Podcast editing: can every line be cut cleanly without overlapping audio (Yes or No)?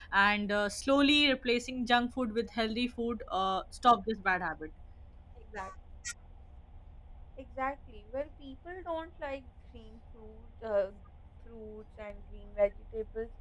Yes